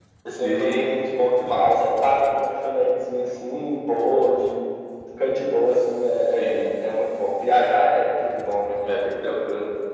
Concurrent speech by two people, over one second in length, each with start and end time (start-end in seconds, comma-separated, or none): none